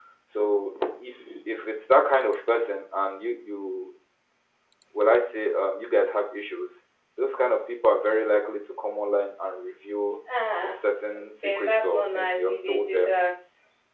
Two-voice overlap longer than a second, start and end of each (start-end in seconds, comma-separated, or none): 11.4-13.2